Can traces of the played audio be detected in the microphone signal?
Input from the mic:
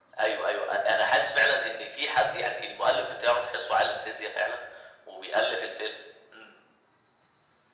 Yes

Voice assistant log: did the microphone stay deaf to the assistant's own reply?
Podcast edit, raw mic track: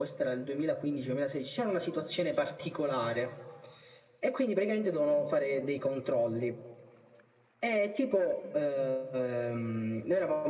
No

